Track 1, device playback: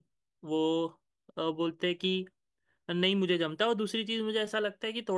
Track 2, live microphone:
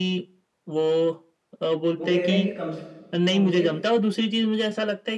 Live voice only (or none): वो कह रहे हैं कि कम से कम उनको हमसे